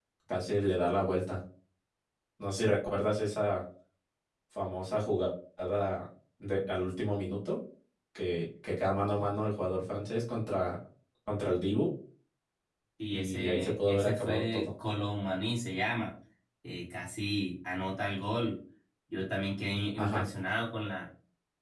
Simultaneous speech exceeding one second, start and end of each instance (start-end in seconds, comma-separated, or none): 13.1-14.7